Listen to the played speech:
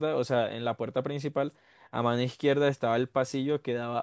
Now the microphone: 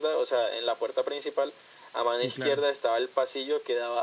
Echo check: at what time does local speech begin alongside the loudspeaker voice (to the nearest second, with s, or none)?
2 s